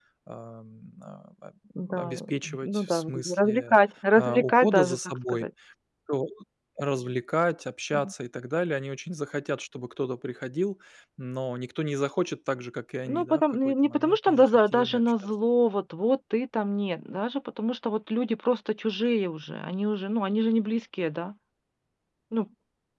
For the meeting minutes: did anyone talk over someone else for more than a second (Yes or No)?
Yes